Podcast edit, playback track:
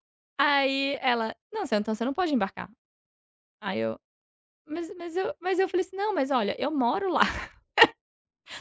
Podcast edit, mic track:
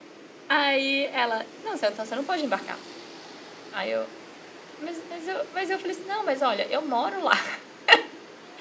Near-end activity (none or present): none